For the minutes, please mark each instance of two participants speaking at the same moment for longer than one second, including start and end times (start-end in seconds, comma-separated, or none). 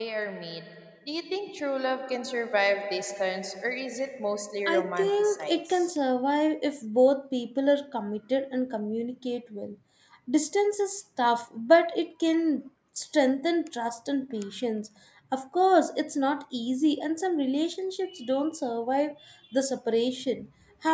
4.7-5.9